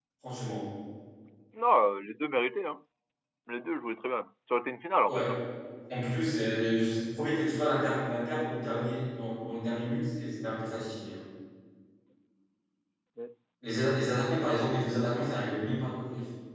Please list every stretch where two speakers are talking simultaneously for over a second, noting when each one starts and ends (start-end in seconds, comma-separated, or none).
none